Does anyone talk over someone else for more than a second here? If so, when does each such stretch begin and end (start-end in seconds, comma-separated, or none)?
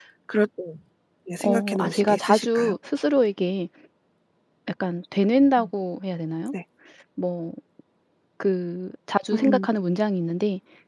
1.4-2.8